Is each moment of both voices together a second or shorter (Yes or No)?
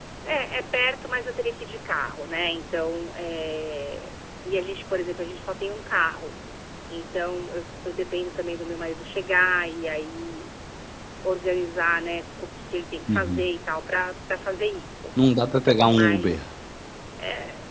Yes